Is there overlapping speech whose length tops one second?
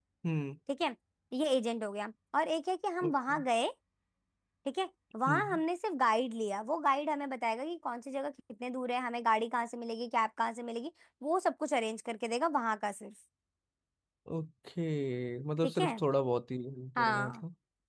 No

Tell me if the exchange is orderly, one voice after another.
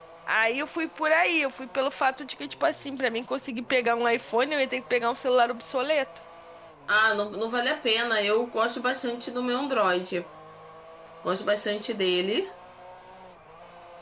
Yes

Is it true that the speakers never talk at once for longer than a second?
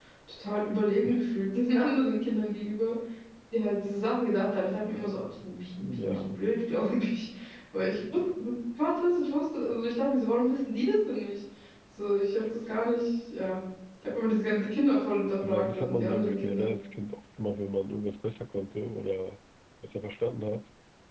No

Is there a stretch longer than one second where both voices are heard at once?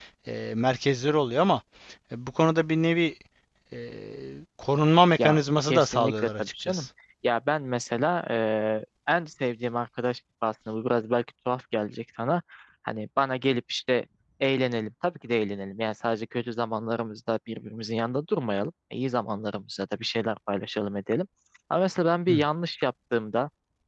Yes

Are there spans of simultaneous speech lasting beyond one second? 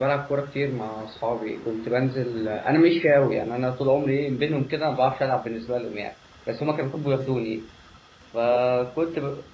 No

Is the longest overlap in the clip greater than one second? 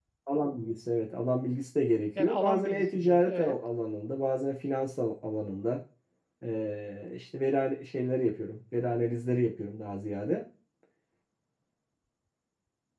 Yes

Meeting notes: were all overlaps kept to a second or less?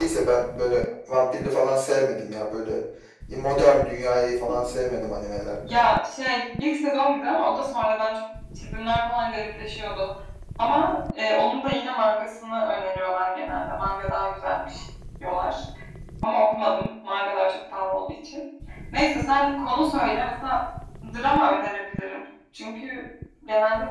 Yes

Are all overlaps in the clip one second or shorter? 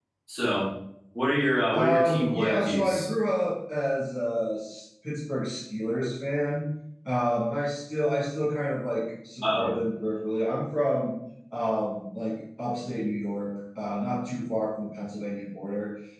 No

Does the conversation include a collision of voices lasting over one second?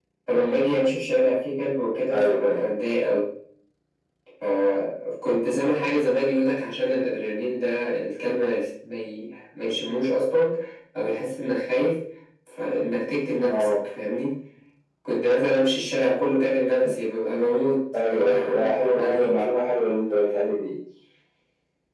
Yes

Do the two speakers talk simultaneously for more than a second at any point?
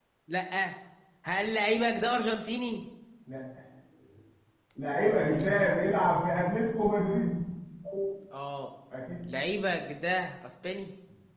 No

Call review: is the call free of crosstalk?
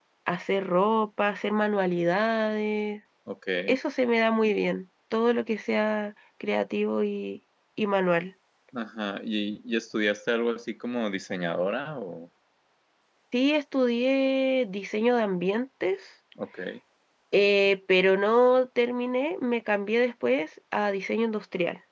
Yes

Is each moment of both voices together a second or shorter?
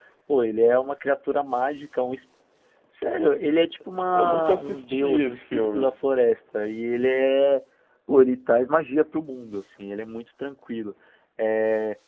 No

